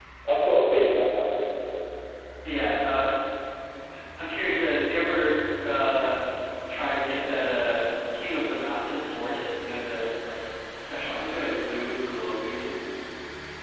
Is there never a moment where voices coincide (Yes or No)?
Yes